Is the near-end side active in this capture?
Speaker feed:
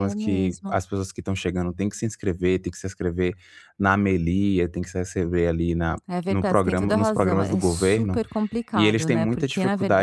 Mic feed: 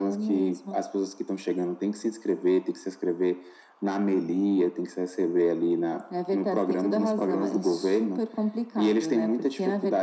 No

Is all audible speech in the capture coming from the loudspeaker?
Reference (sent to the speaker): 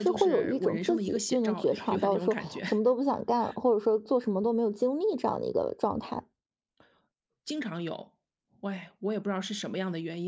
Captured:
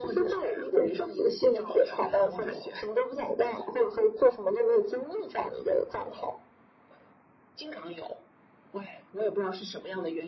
Yes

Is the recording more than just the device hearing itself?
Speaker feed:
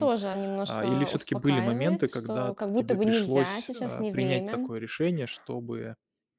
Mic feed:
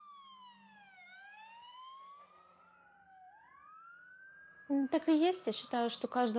Yes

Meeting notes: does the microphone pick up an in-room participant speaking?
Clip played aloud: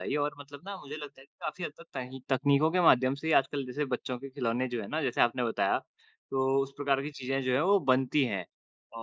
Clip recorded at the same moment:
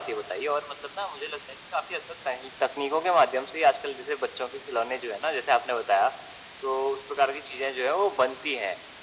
No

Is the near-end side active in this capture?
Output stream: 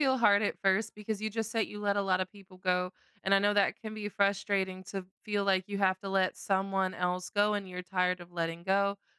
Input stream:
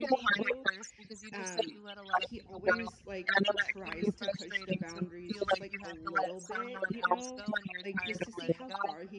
Yes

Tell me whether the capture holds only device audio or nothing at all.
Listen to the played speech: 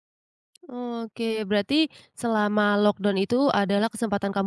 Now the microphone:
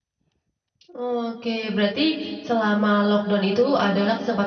Yes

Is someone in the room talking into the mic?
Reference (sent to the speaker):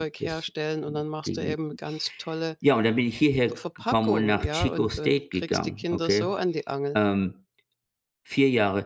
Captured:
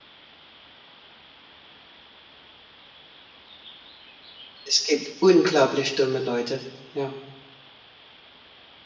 Yes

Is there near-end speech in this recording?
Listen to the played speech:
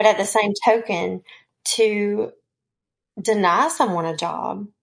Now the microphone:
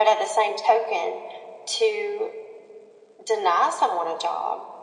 No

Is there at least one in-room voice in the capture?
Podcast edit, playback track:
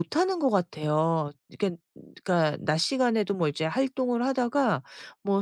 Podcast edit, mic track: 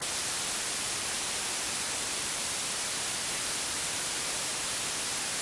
No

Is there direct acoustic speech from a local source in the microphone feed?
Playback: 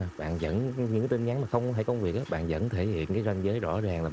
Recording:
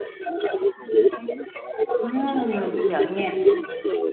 Yes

